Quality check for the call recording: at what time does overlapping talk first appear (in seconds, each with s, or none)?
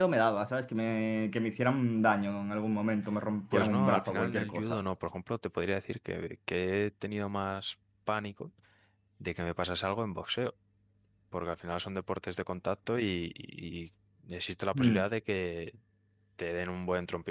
3.5 s